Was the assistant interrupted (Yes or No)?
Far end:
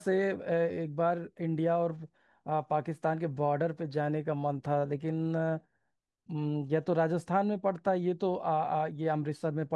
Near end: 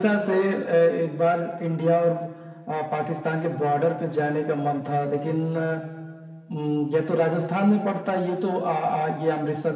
No